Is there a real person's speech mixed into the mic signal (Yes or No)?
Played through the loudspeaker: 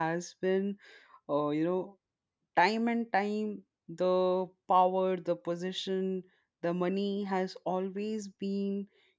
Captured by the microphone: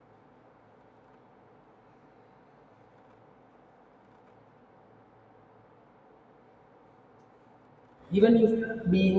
Yes